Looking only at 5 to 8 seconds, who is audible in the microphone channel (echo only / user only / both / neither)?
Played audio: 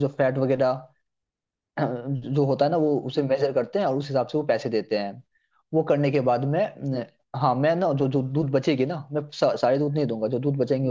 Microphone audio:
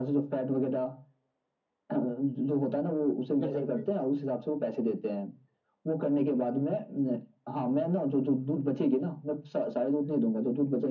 echo only